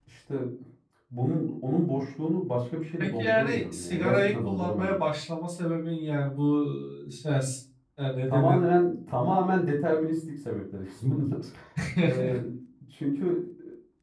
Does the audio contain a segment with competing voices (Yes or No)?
Yes